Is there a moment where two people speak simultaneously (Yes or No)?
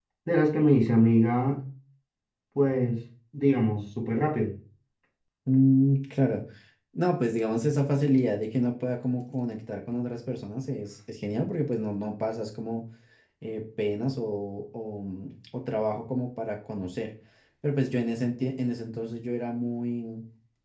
No